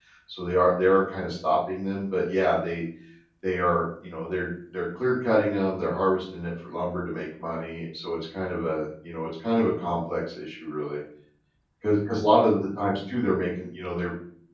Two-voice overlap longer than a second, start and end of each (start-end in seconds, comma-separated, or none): none